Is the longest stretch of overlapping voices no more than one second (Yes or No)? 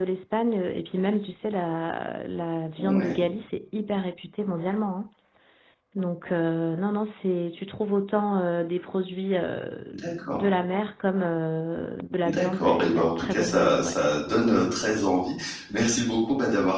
No